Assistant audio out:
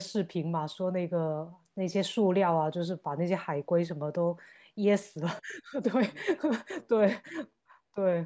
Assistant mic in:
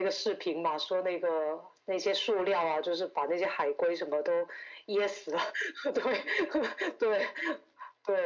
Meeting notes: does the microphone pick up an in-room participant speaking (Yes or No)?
No